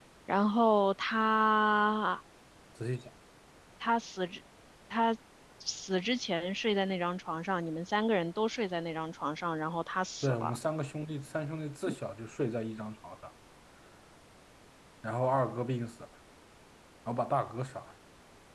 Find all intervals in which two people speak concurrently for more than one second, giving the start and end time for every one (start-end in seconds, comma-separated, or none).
none